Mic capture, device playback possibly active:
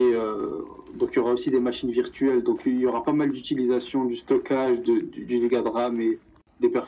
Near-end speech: none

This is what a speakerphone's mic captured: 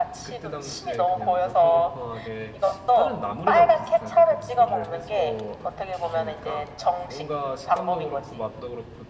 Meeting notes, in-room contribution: present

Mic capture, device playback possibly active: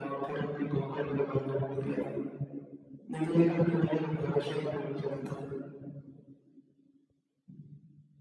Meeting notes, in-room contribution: none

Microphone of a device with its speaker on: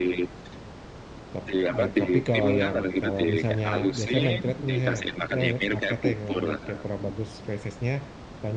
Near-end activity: present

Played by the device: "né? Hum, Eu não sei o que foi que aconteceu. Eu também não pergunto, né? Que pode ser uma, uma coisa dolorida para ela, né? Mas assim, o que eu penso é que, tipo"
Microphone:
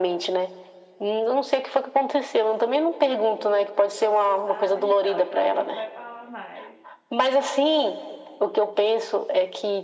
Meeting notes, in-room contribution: present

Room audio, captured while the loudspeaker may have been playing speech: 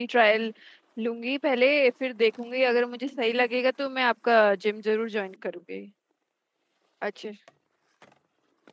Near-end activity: present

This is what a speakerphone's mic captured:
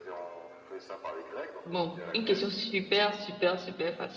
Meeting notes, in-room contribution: present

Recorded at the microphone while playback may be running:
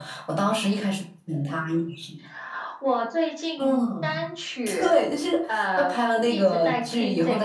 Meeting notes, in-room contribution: none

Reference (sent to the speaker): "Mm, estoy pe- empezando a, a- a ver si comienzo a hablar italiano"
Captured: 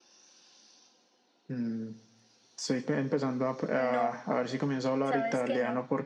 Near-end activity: present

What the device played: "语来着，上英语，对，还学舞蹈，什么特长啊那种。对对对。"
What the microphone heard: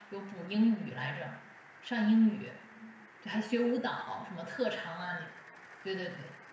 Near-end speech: none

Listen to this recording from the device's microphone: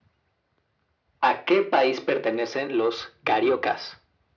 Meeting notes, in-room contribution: present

